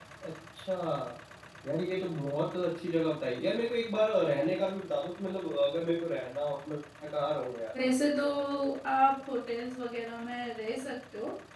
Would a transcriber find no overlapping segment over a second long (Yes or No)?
Yes